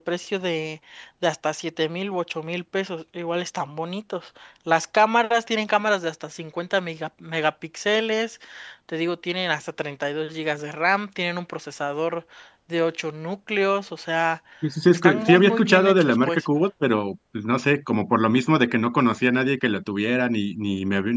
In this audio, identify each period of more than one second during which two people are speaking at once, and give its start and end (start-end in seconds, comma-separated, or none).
14.9-16.4